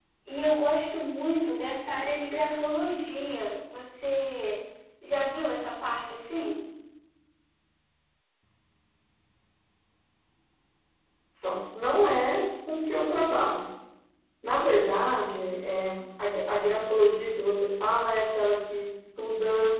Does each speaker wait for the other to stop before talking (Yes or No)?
Yes